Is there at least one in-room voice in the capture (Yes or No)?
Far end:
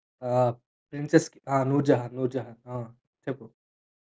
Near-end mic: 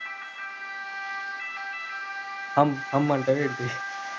Yes